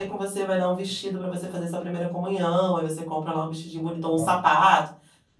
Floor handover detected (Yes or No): No